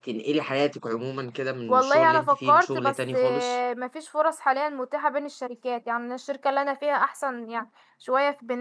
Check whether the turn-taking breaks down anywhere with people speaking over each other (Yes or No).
Yes